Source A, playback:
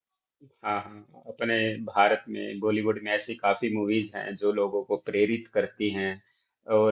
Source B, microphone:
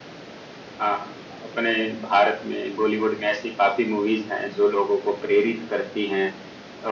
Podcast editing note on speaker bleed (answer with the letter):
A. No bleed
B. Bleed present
B